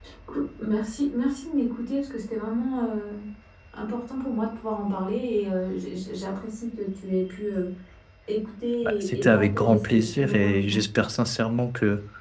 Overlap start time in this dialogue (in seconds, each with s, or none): 8.8 s